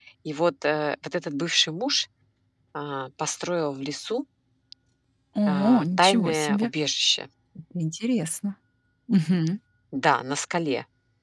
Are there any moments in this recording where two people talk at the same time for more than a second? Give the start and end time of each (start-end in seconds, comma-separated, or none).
5.5-6.7